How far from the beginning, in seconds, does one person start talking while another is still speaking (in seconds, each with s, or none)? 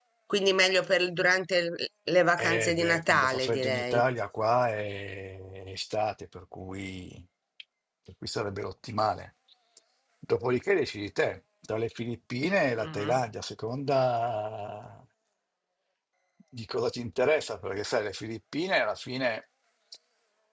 2.4 s